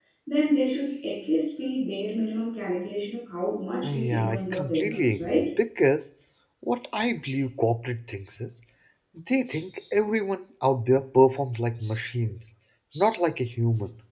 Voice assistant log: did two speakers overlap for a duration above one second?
Yes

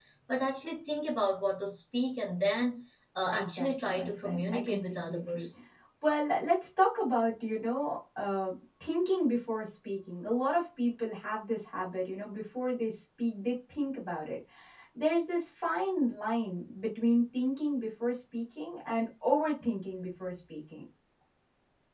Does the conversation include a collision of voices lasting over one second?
Yes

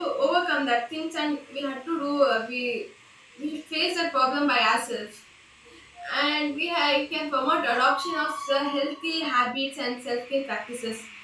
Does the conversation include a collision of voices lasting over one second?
No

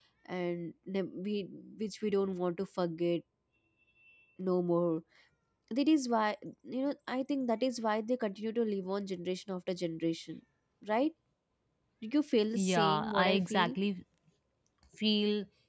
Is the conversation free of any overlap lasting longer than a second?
No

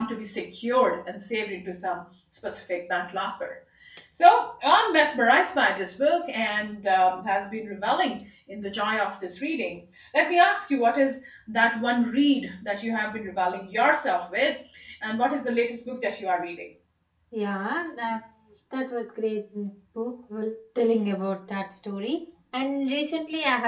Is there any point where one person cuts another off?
No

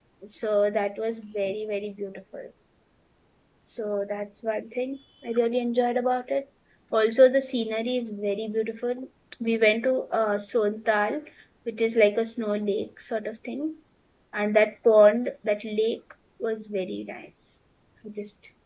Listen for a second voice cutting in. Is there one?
No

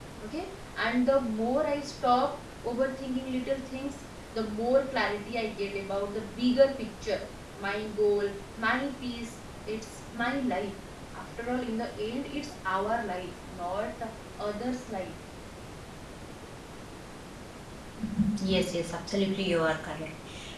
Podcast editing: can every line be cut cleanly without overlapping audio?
Yes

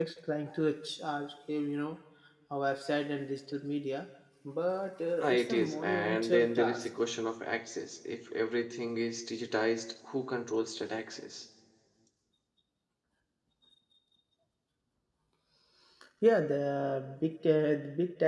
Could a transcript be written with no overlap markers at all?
No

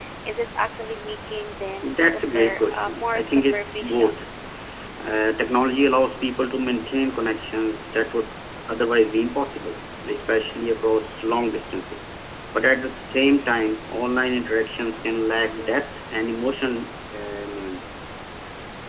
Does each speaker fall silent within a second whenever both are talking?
No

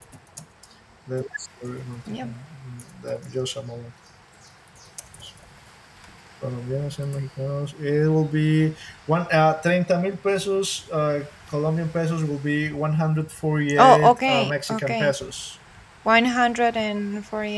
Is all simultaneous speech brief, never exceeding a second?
No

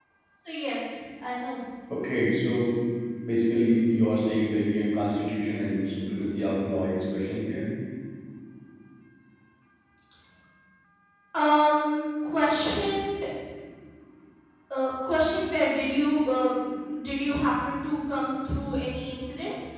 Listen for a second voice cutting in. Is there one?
No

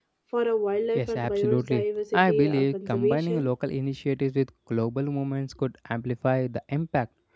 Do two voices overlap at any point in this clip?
Yes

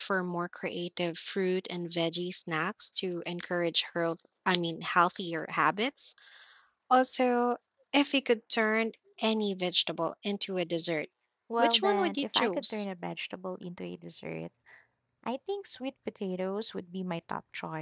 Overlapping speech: Yes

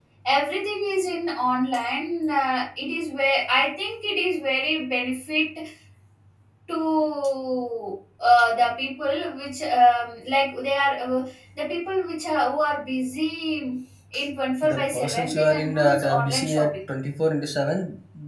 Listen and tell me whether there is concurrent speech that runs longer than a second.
Yes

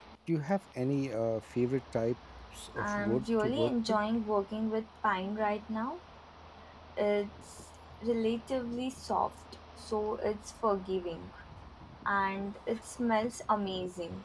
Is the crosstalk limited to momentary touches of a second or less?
No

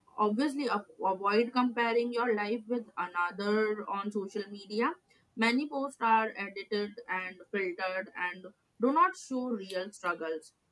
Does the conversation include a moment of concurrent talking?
No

